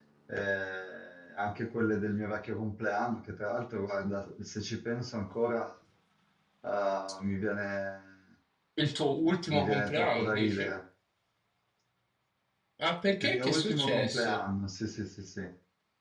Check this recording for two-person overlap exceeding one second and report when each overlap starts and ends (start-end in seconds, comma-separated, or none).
9.5-10.7, 13.2-14.4